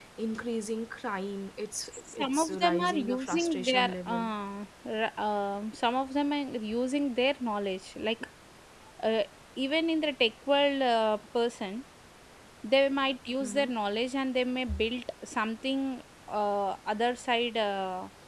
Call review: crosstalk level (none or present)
present